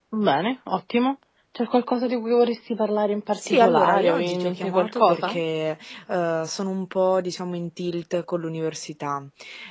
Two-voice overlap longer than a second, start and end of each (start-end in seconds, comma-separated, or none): 3.4-5.4